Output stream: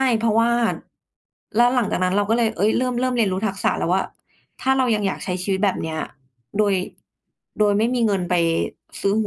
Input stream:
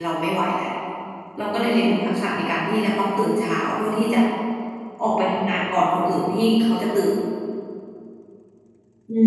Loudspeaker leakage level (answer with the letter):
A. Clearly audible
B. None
B